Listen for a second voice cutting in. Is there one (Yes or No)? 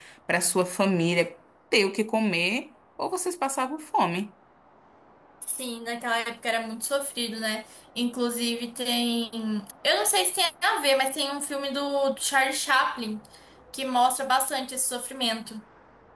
No